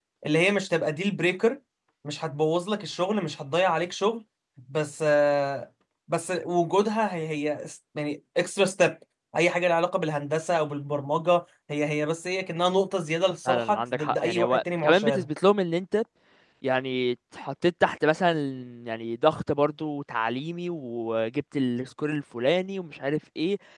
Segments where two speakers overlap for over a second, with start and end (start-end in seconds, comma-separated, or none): 13.4-15.3